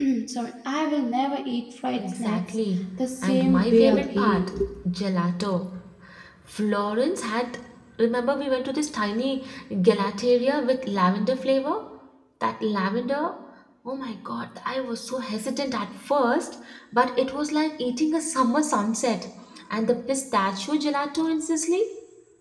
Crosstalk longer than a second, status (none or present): present